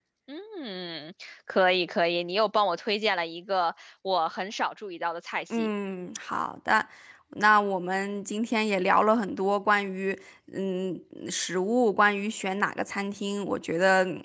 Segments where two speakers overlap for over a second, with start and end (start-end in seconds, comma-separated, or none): none